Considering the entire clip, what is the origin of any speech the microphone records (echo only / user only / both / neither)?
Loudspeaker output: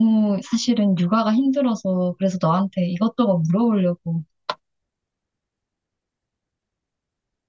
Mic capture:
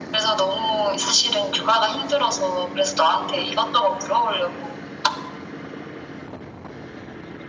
echo only